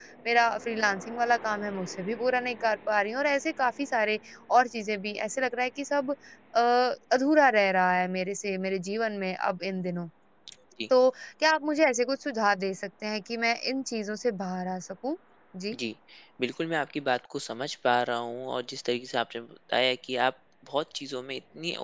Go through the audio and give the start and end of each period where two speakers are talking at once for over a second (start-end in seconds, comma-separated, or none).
none